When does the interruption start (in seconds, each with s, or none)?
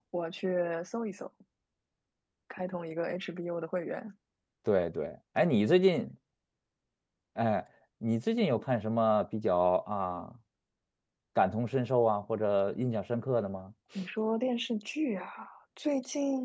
none